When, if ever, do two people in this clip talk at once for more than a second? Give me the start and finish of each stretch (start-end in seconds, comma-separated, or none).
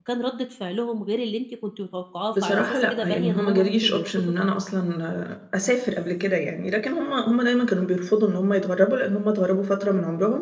2.4-4.3